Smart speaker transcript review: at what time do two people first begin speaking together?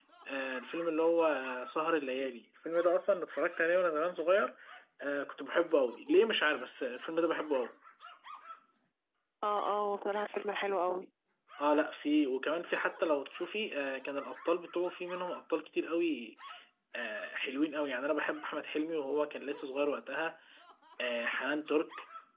none

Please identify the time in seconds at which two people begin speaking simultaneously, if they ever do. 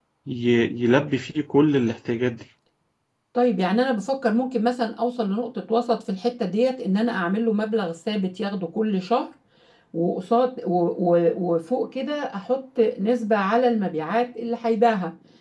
none

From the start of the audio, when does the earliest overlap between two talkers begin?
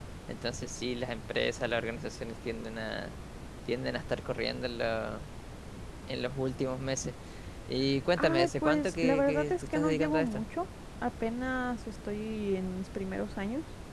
8.2 s

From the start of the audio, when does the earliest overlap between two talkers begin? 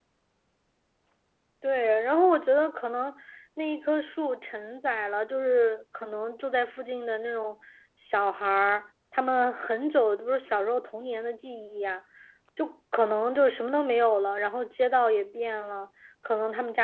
none

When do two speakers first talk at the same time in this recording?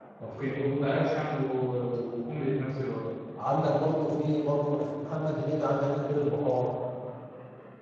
none

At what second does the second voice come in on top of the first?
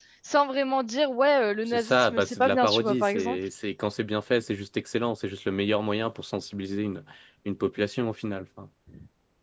1.7 s

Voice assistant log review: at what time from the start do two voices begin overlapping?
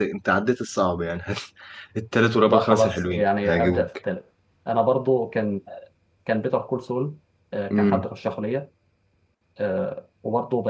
2.5 s

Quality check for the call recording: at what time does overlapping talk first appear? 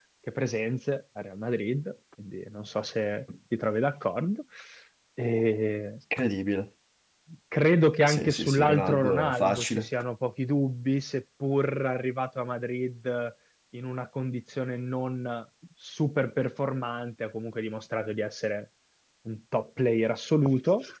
8.1 s

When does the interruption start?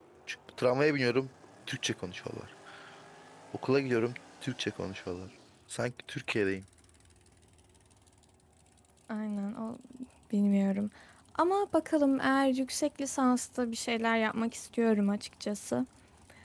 none

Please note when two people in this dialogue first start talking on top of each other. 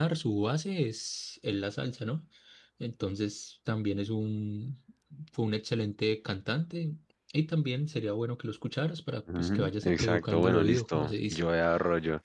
9.3 s

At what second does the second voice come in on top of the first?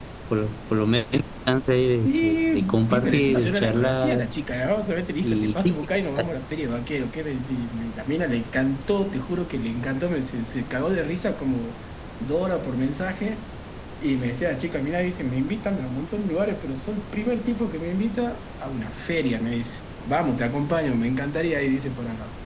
2.0 s

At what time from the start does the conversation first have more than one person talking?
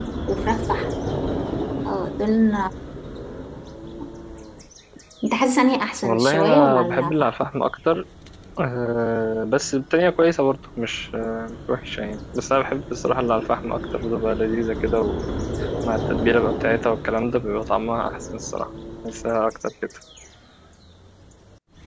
6.0 s

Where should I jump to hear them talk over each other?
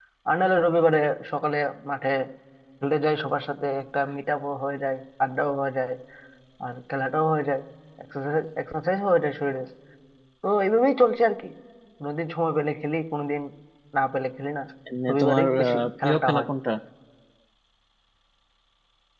15.1 s

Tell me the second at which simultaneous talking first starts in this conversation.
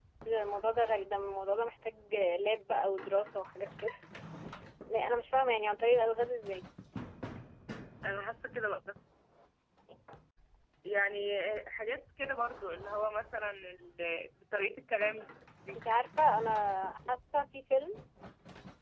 none

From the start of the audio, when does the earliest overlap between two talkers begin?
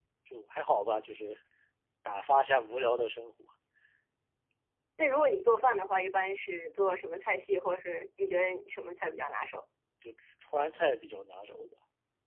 none

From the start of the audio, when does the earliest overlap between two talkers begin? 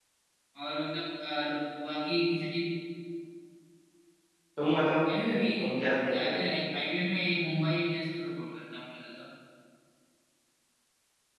5.0 s

